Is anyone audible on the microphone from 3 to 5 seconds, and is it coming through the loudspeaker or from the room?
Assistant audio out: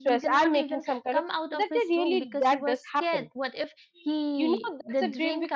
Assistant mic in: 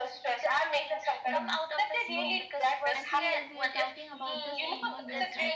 both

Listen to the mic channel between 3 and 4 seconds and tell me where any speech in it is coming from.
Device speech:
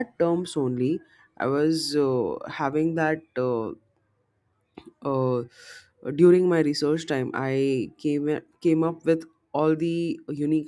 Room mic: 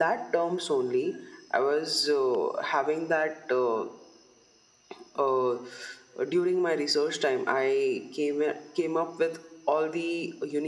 echo only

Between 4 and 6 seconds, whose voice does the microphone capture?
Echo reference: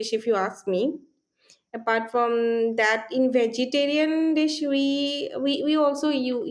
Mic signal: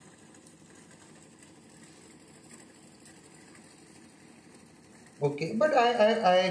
user only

